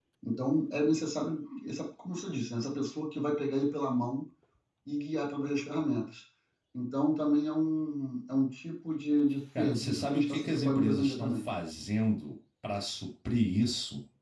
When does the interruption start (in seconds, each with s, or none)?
9.6 s